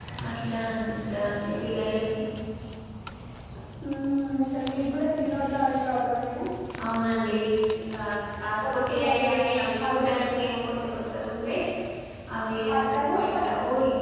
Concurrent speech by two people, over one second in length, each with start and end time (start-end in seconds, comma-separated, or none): 8.6-10.4